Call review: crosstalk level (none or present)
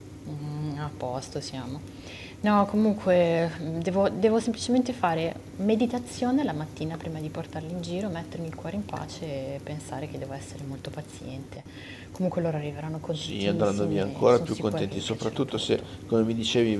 present